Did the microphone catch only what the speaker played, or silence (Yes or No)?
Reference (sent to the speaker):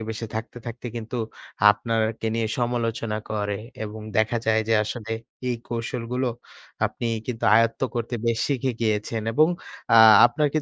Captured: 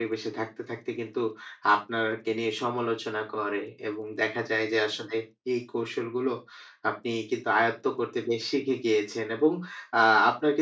Yes